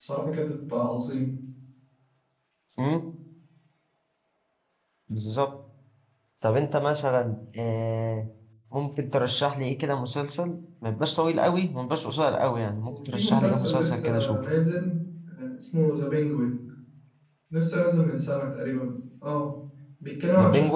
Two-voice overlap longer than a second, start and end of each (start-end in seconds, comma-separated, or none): 12.9-14.4